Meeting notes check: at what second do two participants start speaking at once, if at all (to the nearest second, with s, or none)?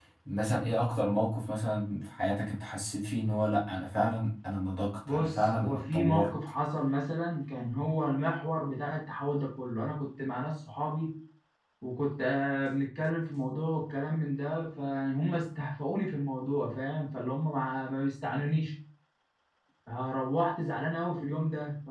5 s